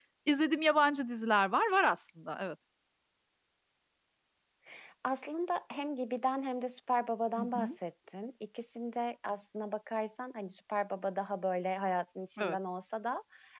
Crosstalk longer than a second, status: none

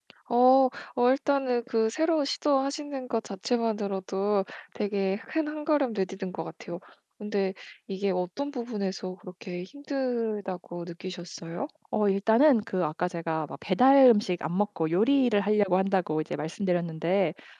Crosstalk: none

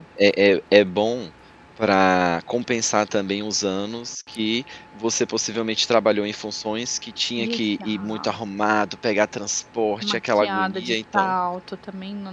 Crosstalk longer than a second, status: present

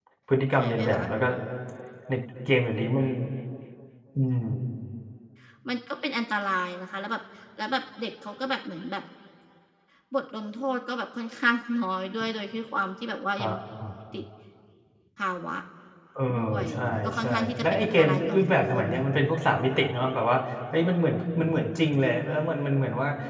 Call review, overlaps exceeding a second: present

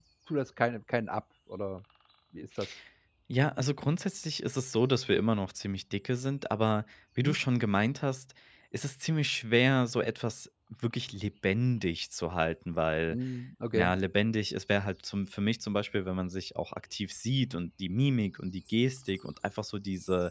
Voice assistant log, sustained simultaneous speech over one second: none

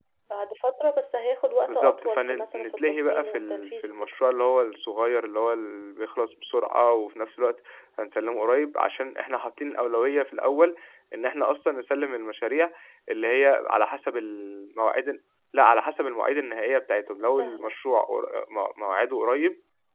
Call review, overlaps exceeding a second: present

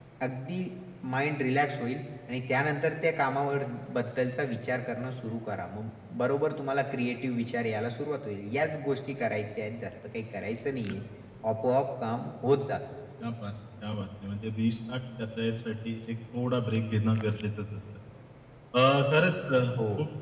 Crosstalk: none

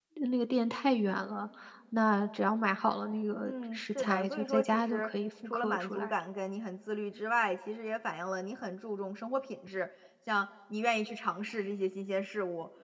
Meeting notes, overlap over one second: present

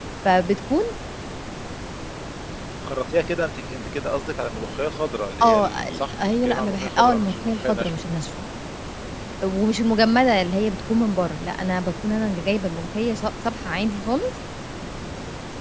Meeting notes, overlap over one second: present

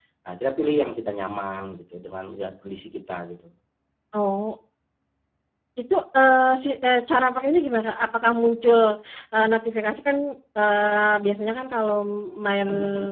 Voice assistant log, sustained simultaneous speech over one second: none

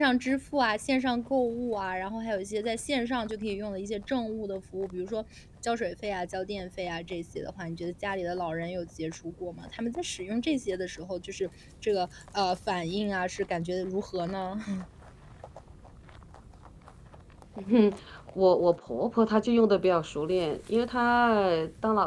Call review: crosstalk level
none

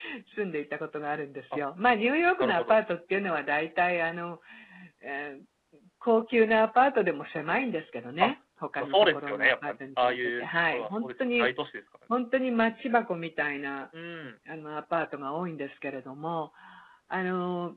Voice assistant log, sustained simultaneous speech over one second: present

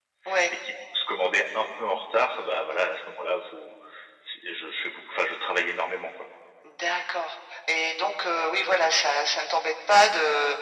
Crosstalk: none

